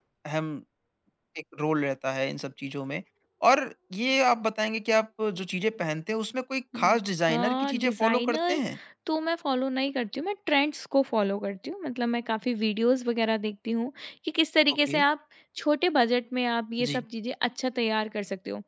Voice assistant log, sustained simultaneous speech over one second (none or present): present